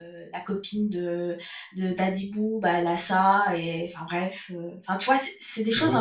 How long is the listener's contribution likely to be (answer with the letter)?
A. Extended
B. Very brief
A